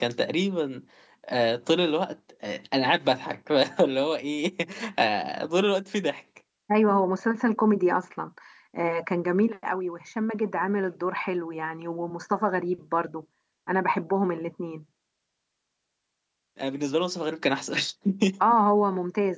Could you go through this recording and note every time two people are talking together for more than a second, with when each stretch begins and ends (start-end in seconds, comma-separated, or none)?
none